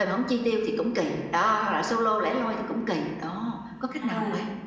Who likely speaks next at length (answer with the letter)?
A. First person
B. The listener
B